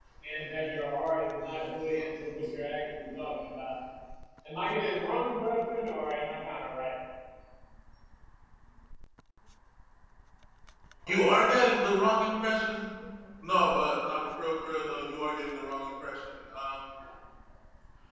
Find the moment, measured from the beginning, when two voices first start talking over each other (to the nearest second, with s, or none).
none